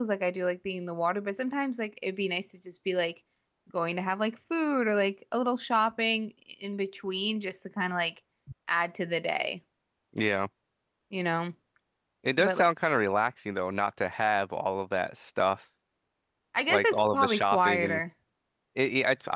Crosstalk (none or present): present